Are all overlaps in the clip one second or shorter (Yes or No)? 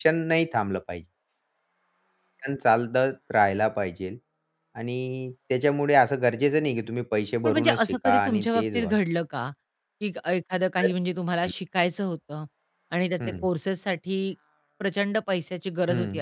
No